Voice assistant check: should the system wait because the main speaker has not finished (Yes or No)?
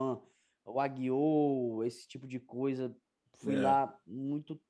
Yes